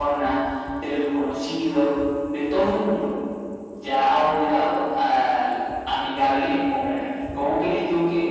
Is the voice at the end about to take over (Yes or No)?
No